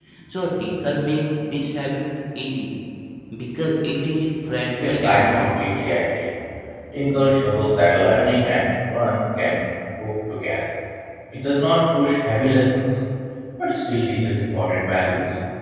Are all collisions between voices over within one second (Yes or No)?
No